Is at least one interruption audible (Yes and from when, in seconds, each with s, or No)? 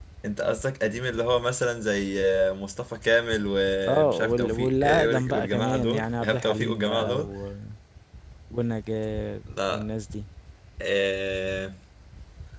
Yes, from 3.9 s